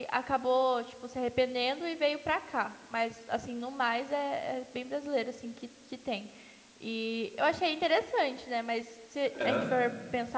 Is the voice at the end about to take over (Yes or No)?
No